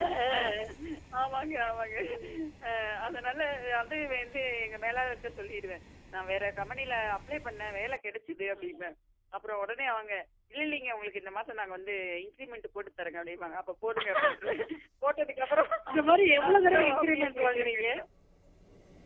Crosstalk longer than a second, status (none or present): present